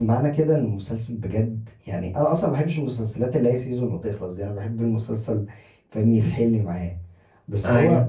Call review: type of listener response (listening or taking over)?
listening